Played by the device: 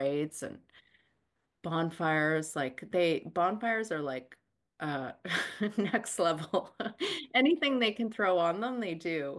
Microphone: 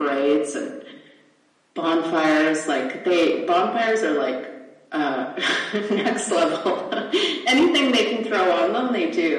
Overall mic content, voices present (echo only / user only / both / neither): echo only